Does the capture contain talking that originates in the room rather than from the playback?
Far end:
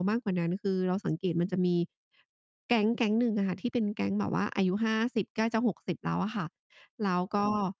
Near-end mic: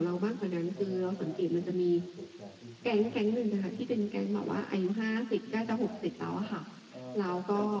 Yes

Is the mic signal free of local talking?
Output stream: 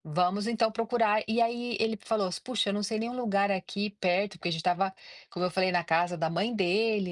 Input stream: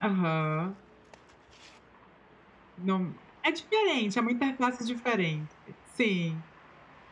No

